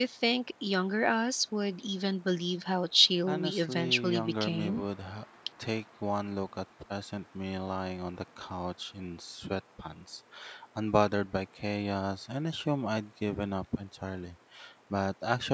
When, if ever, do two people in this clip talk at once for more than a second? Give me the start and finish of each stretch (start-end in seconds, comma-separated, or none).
3.3-4.8